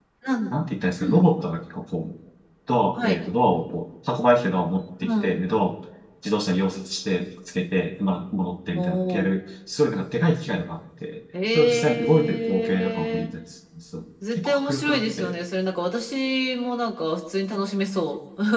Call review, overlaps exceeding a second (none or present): present